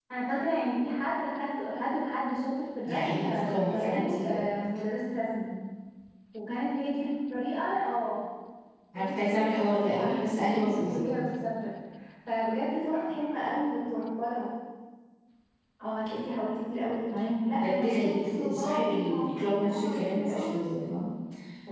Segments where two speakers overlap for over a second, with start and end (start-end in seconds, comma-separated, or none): 2.9-4.4, 8.9-11.1, 17.5-20.6